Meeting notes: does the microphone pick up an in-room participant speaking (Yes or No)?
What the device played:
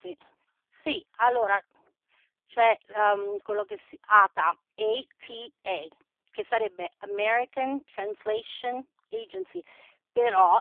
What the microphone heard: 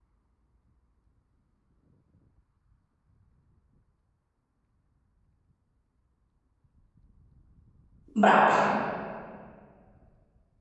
Yes